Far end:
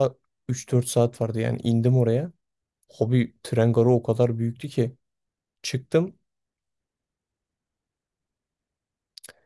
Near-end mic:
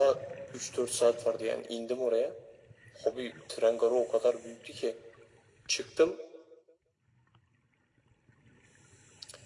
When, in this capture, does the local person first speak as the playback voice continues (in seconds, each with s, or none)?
none